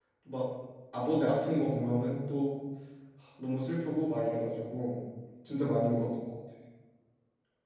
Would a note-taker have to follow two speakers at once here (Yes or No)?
No